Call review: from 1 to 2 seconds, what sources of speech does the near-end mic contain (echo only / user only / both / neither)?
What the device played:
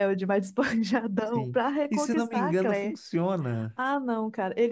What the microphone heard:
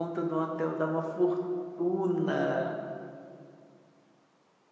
user only